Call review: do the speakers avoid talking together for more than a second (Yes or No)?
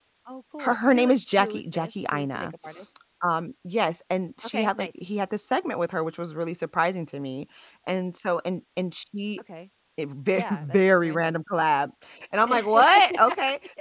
No